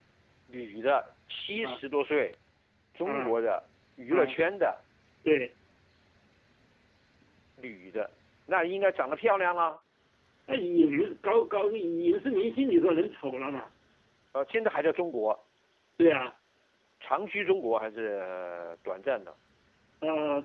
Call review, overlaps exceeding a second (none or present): none